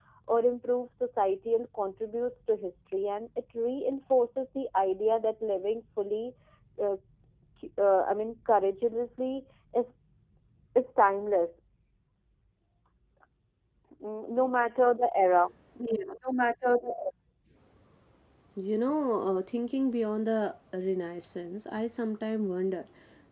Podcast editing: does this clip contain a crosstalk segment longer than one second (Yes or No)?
No